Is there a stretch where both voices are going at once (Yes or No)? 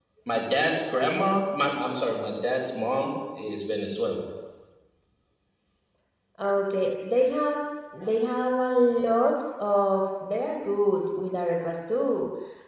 No